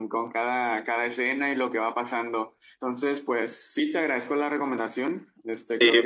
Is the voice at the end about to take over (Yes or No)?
No